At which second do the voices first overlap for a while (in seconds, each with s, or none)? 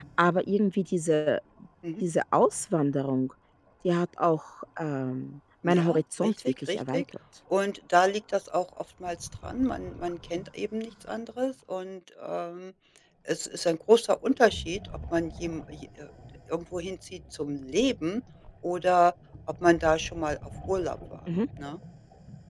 5.6 s